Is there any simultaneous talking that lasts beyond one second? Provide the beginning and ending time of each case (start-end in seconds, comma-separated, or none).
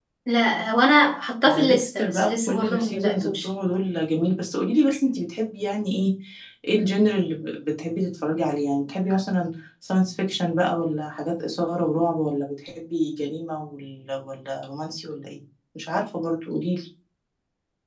1.5-3.5